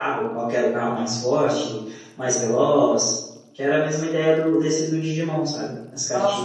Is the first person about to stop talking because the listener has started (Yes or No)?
Yes